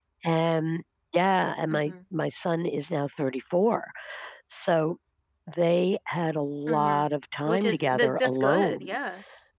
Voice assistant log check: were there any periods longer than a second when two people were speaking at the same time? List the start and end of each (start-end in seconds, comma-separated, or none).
7.5-9.0